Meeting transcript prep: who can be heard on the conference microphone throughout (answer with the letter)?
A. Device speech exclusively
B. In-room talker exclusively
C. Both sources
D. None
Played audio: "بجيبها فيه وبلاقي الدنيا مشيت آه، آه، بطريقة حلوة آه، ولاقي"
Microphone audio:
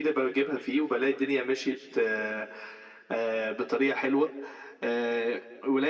A